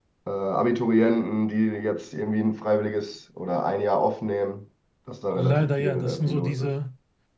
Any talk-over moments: Yes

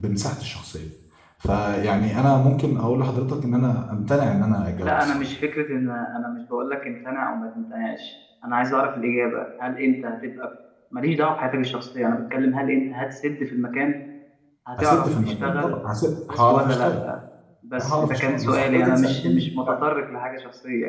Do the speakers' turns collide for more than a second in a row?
Yes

